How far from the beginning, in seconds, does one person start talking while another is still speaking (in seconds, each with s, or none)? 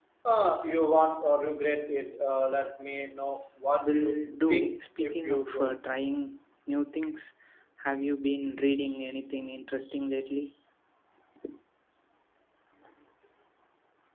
3.8 s